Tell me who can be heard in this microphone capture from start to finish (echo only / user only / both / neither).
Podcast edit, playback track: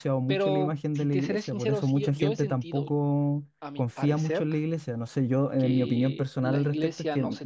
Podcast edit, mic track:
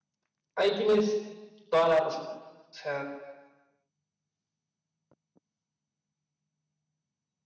user only